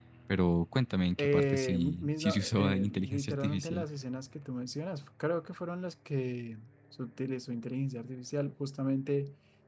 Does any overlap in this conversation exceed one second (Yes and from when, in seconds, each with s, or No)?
Yes, from 1.2 s